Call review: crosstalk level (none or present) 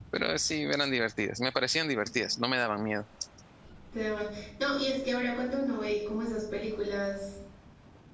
none